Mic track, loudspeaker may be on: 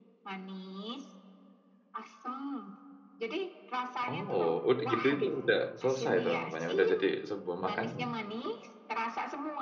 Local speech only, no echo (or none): Oh, udah gitu itu udah selesai tuh namanya. Udah jadi sebuah makanan.